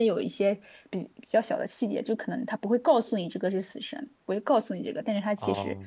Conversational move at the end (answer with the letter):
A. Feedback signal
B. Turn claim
B